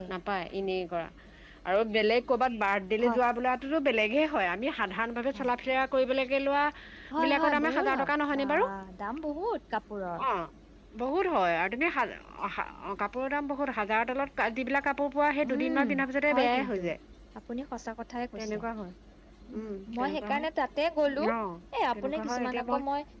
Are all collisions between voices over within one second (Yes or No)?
No